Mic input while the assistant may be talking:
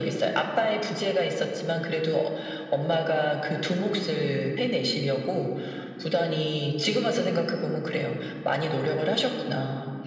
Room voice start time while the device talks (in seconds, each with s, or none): none